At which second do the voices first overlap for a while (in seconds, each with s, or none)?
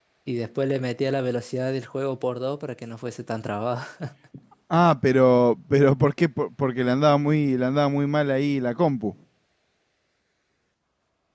none